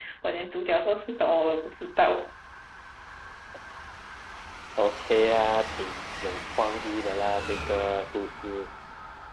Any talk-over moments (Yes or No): No